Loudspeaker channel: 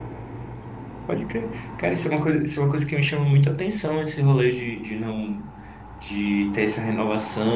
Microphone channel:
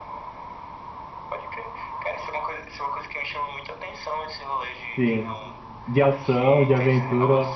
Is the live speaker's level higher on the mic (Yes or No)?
Yes